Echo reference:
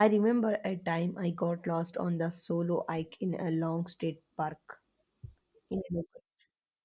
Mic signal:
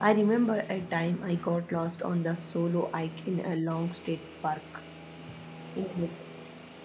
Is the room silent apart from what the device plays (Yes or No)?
Yes